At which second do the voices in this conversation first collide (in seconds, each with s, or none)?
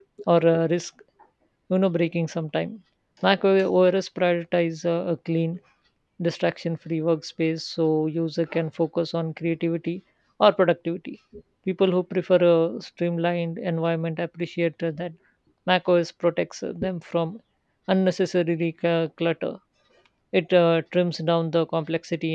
none